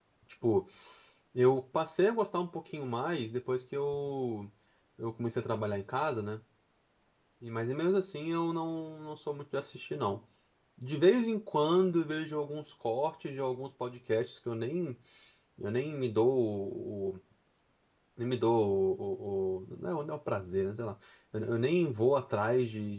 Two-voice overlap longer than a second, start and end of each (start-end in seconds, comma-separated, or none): none